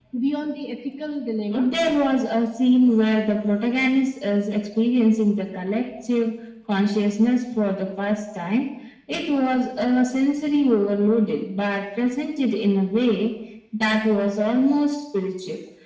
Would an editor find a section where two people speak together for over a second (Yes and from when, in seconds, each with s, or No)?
No